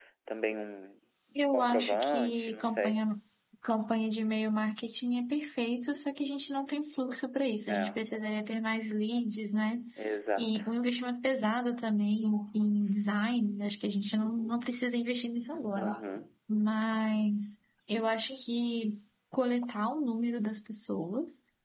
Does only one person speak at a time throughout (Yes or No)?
No